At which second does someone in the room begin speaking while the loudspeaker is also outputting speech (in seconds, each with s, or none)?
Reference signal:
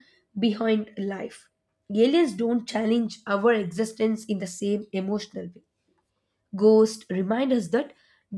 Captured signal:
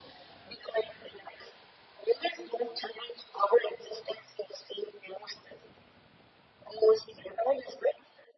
none